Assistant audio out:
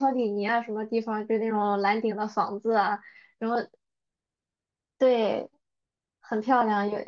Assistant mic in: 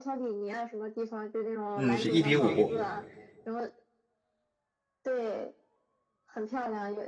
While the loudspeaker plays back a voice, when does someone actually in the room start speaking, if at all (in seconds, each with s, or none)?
1.8 s